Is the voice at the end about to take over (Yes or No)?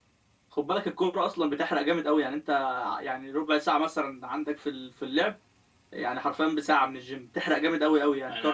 Yes